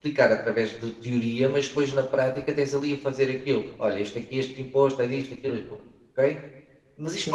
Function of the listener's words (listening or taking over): listening